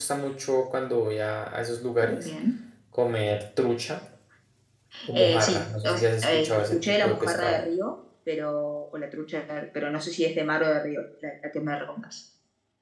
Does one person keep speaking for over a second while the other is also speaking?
Yes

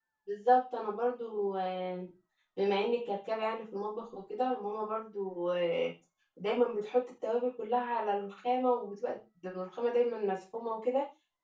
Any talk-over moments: No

